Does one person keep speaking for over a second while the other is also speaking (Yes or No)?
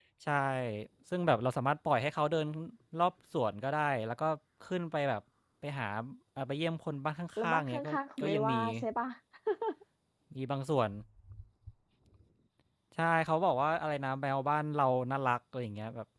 Yes